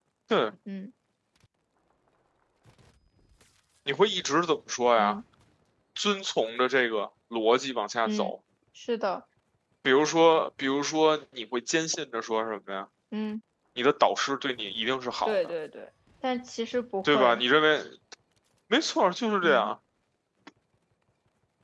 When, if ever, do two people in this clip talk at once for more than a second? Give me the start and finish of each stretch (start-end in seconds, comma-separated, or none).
none